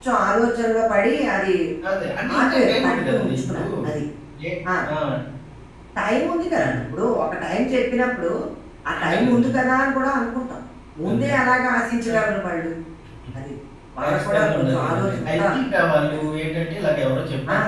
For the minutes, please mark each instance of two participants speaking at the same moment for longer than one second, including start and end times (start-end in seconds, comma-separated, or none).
2.4-3.6, 14.0-15.6